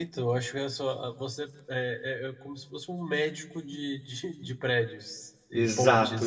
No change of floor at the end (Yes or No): No